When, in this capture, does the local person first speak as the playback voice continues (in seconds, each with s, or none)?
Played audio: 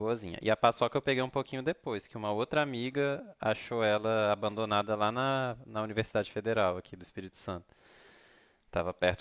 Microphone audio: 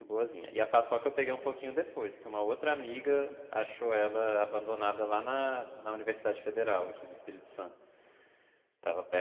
none